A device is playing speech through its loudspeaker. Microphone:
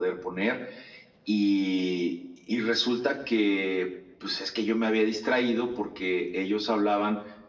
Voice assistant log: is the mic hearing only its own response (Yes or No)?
Yes